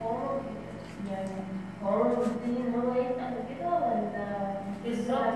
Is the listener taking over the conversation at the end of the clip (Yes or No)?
Yes